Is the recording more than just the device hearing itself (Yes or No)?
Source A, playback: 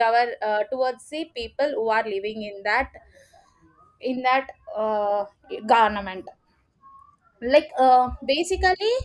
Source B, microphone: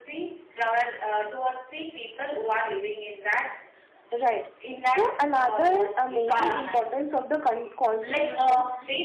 Yes